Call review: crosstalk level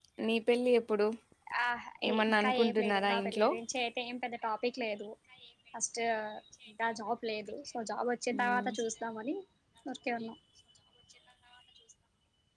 present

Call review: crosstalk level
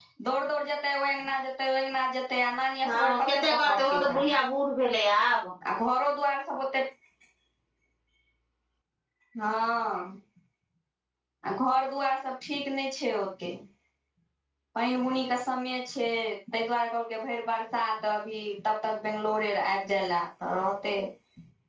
present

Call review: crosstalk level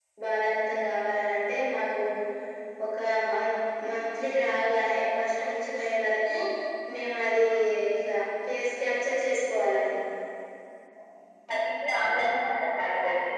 none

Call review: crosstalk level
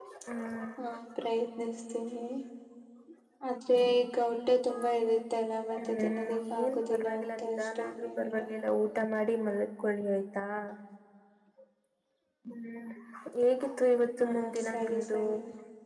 present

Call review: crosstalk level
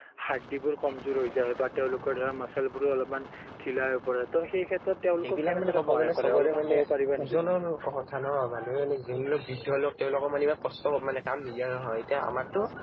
present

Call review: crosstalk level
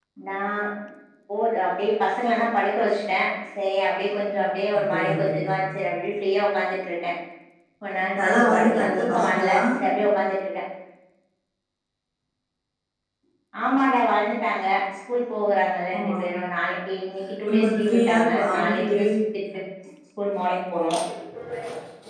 present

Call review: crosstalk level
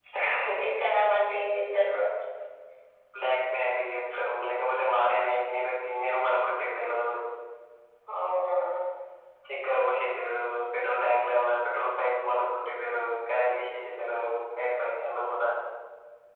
none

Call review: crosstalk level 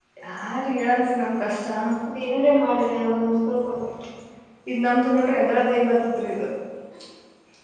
none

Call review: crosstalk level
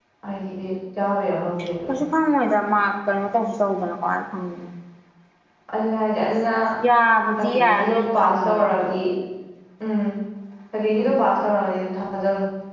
present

